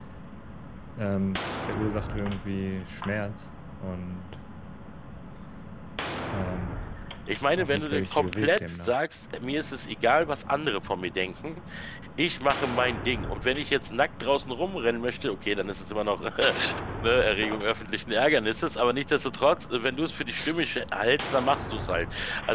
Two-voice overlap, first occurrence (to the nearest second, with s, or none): 7 s